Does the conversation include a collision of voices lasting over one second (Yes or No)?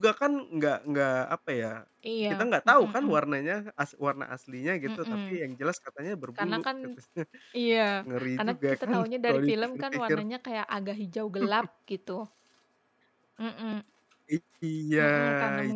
Yes